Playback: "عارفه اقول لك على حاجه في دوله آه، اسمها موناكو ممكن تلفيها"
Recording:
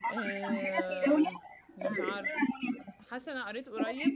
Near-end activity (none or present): present